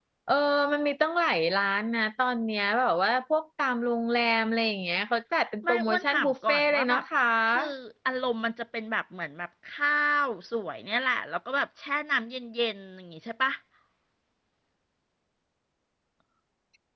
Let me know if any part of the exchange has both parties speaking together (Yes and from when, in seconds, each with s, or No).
Yes, from 5.6 s